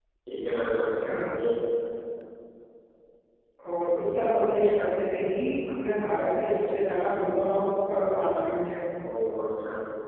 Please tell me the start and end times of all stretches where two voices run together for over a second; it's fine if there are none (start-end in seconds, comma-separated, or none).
none